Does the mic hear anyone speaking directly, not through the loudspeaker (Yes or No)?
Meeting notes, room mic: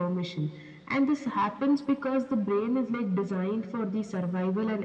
No